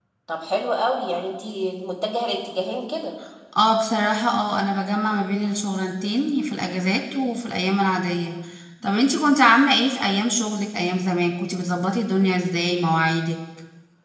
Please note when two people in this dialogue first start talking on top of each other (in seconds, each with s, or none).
none